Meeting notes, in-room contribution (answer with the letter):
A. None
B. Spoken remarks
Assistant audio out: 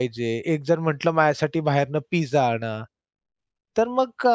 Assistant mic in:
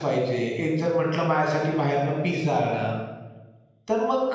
A